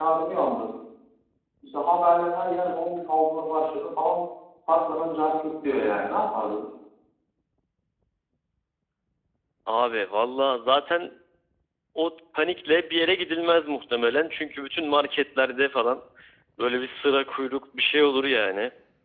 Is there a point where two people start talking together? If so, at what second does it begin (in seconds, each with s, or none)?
none